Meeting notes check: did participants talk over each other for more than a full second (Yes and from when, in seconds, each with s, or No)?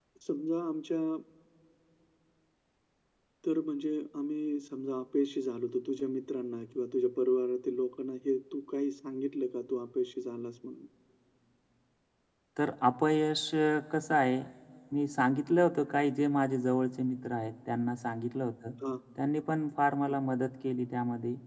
No